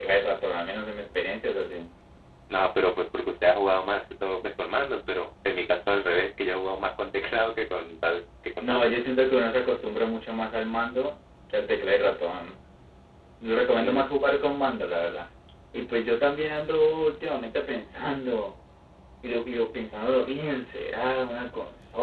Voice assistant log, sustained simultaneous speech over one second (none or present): none